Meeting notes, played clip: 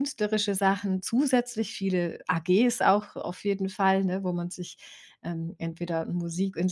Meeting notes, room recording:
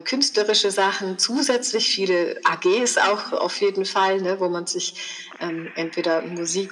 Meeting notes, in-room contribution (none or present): none